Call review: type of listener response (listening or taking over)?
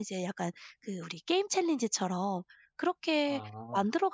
listening